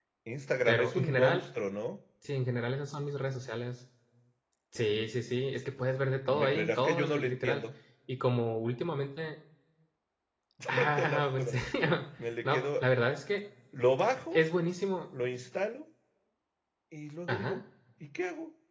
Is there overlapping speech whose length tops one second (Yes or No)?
Yes